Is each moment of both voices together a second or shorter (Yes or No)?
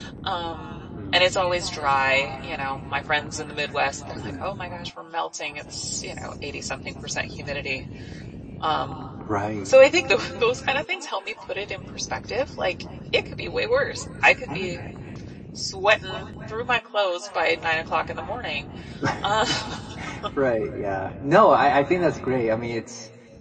Yes